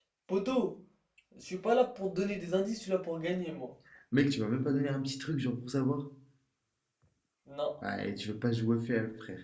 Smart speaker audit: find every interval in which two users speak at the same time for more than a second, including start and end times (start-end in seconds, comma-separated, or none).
none